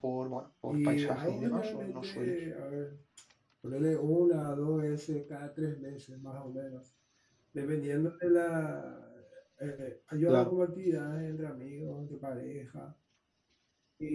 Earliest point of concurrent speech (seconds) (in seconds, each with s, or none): 0.7 s